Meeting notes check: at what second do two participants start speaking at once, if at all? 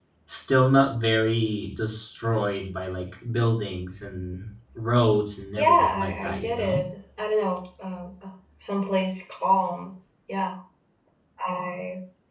5.6 s

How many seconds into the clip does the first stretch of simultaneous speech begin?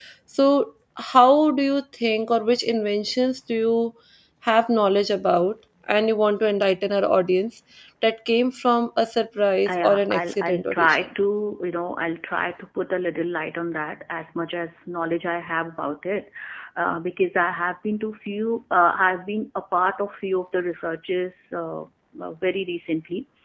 9.7 s

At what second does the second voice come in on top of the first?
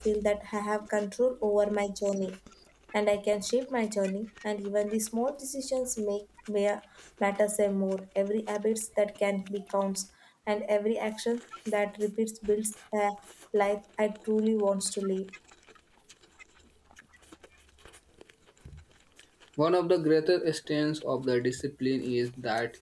none

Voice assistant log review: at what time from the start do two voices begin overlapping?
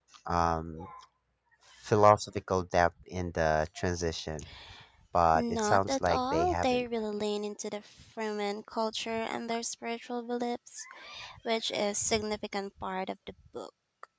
5.3 s

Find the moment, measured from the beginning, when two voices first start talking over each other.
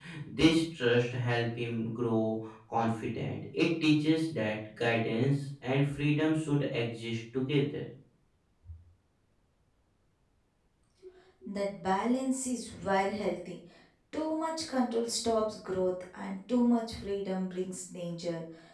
none

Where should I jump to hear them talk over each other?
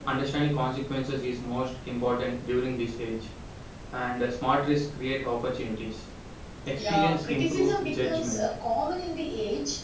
6.8 s

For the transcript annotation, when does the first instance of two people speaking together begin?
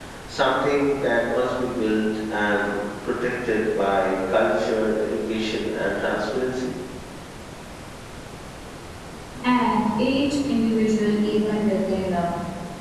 none

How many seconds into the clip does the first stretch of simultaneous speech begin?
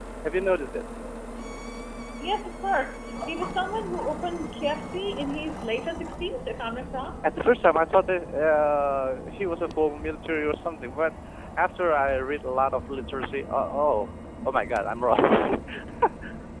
none

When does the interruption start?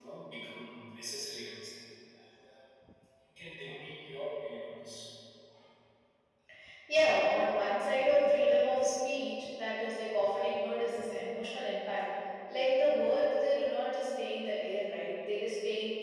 none

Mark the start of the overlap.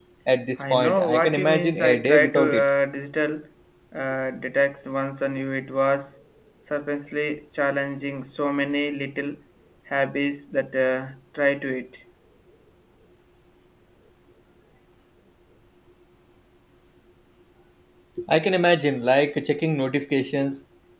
0.6 s

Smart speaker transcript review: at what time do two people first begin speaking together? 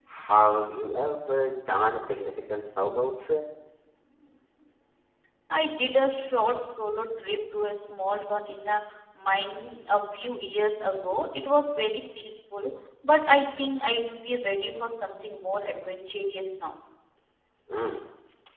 none

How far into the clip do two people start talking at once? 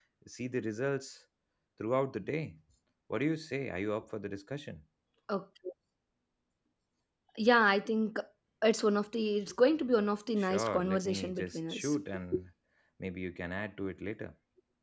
10.4 s

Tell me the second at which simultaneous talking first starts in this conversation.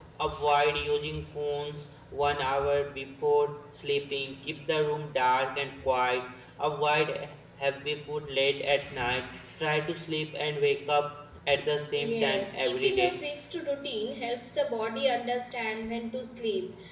11.9 s

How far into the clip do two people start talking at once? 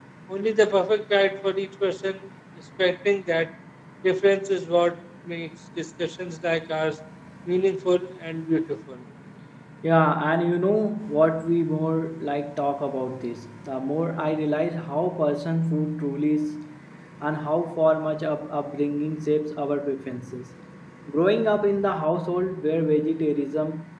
none

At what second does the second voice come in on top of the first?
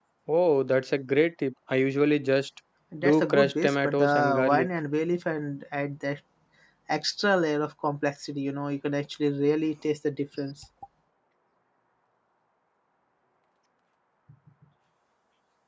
3.0 s

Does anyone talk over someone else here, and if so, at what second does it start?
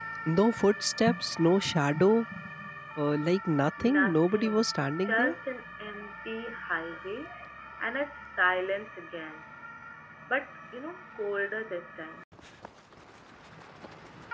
3.8 s

